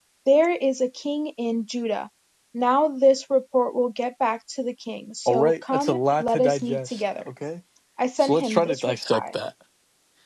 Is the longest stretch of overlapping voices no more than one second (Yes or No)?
No